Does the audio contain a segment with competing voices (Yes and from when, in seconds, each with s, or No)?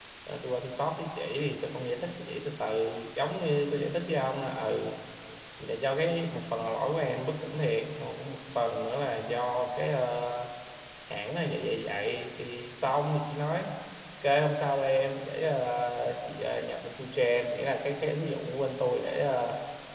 No